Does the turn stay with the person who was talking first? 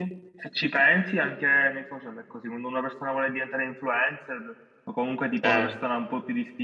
Yes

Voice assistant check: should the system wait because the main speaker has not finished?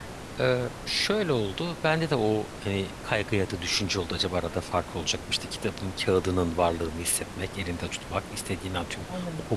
Yes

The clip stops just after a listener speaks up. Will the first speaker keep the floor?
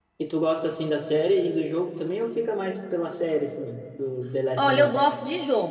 No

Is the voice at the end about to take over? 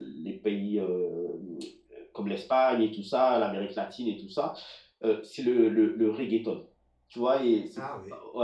No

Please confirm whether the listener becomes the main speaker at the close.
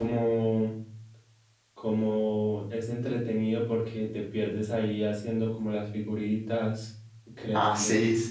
Yes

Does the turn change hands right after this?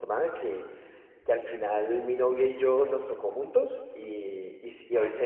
No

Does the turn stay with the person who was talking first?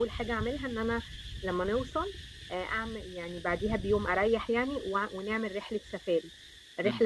Yes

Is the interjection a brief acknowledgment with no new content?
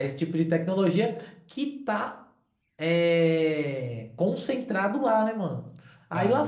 Yes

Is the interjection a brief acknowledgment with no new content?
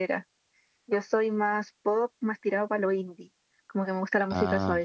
Yes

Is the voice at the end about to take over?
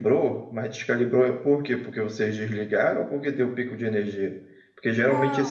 No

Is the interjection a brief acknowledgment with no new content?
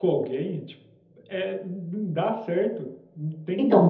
No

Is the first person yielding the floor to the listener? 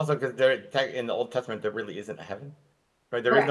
Yes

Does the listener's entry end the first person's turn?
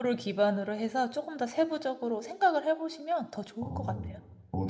Yes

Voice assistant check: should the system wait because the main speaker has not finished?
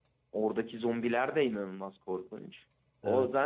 Yes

